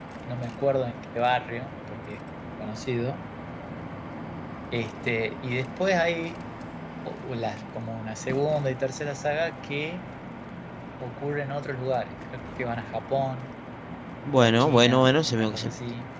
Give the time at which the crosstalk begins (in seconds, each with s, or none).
14.4 s